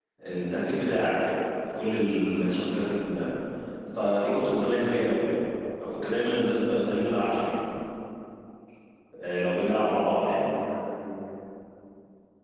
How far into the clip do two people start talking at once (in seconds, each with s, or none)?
none